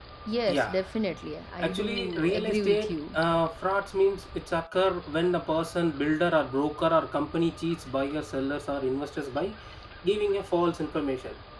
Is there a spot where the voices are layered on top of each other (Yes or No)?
Yes